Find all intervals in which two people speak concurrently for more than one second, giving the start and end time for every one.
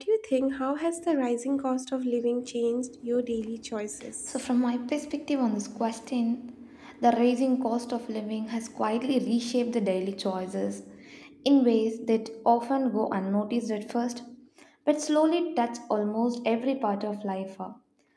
none

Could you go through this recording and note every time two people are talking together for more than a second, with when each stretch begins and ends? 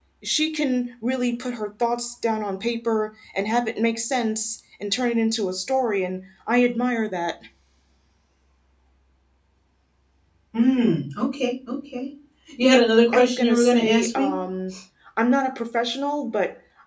13.1-14.3

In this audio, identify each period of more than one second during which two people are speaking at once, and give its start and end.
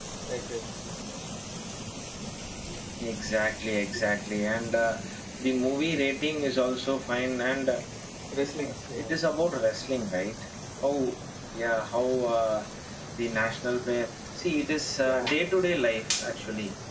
none

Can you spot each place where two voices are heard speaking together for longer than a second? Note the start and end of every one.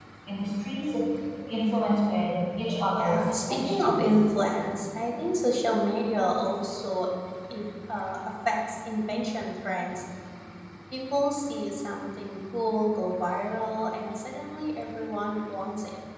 2.9-4.2

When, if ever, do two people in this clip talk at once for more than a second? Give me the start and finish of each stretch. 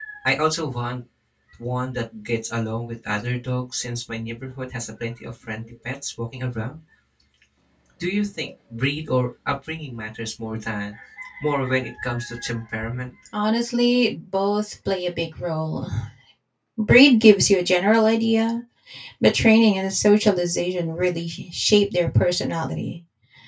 none

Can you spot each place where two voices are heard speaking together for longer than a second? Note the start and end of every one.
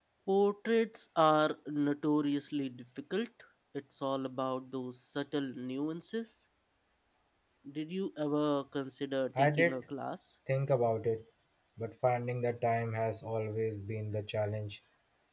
none

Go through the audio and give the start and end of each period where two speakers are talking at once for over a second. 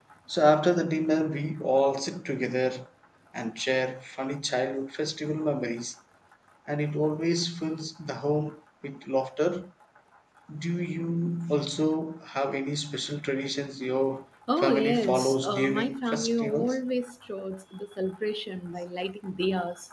14.6-16.8

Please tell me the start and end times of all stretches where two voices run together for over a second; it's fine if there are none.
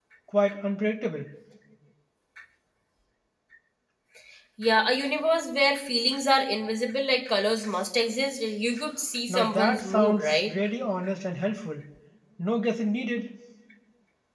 9.3-10.5

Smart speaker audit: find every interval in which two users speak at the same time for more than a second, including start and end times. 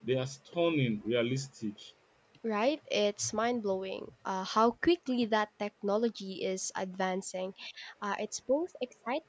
none

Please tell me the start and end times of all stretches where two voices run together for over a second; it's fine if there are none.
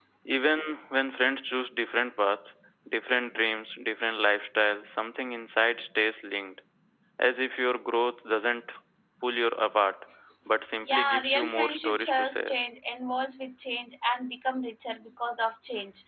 10.9-12.5

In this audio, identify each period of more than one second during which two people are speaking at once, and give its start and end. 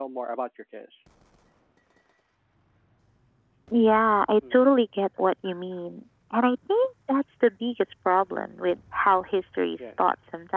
none

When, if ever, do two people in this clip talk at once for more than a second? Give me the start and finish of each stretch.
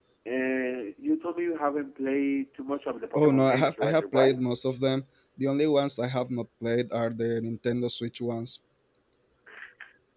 3.1-4.4

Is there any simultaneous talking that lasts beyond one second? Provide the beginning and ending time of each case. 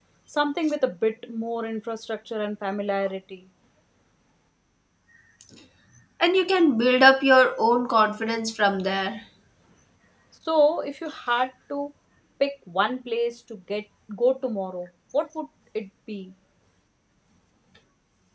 none

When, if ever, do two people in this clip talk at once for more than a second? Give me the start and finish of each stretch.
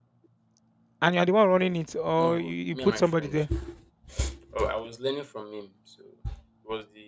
2.2-3.4

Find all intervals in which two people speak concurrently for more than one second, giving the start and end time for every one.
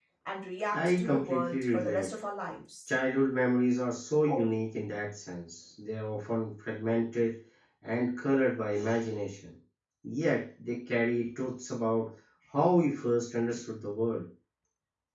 0.7-2.2

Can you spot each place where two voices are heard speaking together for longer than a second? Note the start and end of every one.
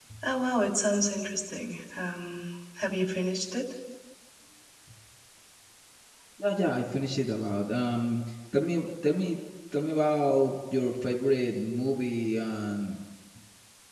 none

